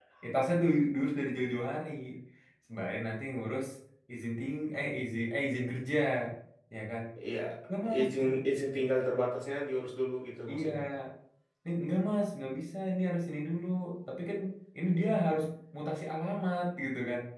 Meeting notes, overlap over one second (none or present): none